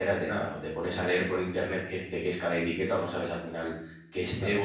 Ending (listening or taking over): listening